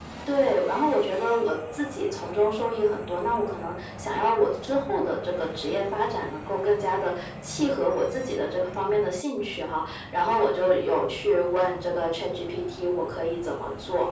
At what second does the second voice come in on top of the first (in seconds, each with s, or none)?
none